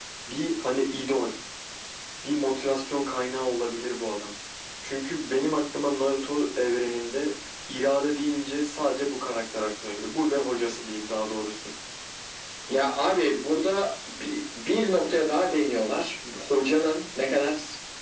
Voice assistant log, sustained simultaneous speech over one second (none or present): none